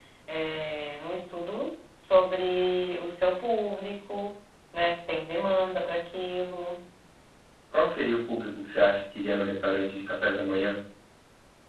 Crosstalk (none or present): none